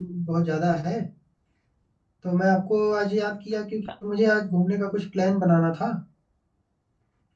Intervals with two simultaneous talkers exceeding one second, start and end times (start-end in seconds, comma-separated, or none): none